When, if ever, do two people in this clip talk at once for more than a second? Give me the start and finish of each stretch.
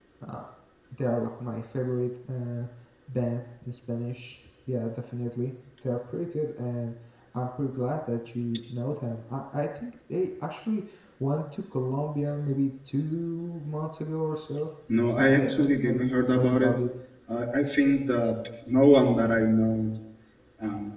15.2-16.7

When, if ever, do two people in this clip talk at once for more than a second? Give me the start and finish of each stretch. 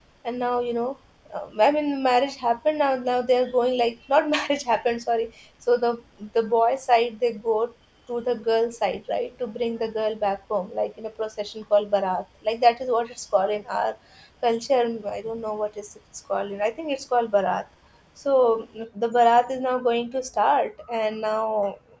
none

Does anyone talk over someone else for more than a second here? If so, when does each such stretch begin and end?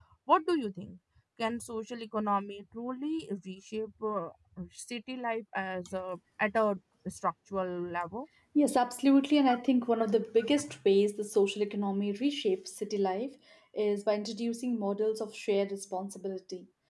none

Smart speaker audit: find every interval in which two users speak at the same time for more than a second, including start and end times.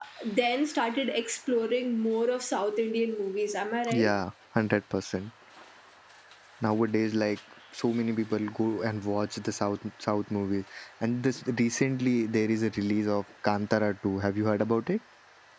none

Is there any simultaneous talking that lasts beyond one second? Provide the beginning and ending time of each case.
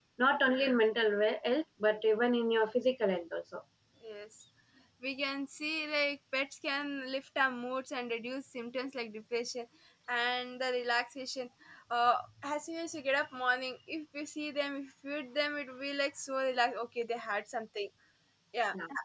none

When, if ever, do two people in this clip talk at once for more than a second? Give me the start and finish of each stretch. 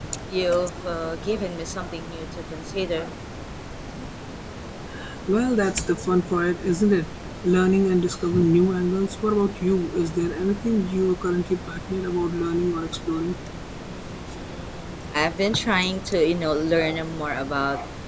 none

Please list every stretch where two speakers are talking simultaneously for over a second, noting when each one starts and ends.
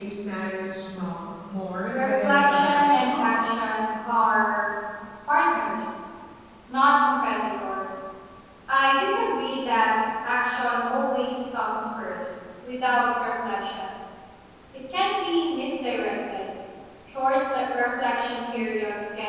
1.9-3.2

